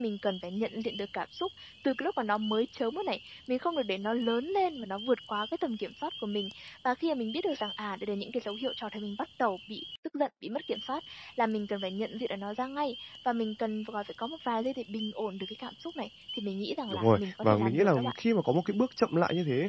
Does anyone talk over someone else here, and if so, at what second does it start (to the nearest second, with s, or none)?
17 s